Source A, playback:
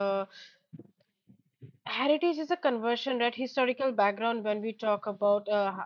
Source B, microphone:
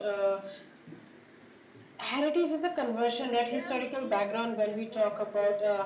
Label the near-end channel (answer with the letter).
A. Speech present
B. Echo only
A